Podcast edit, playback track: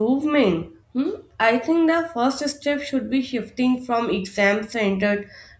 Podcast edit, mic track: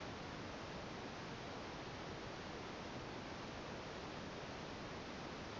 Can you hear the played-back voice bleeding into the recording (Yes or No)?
No